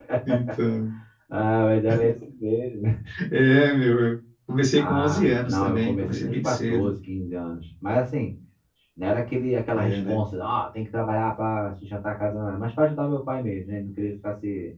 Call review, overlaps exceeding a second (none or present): present